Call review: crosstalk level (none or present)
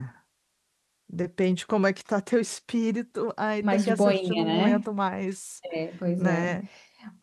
present